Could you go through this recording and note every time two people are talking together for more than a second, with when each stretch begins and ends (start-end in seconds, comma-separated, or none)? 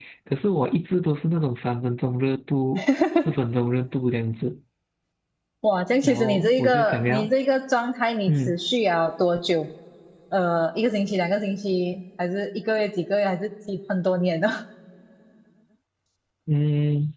6.0-7.3